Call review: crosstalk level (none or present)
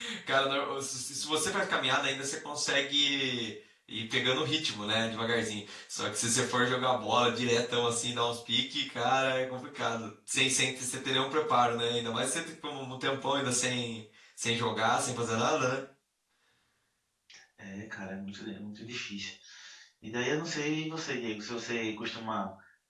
none